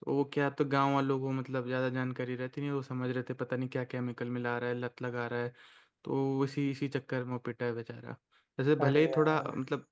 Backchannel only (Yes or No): Yes